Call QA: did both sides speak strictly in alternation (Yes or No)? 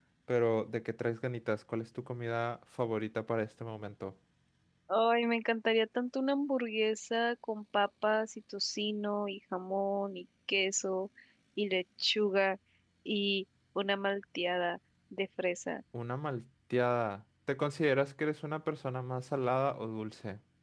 Yes